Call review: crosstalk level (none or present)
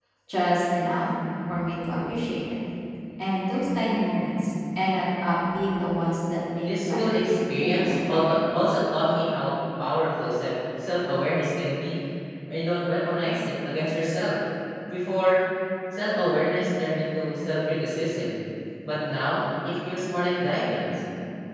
present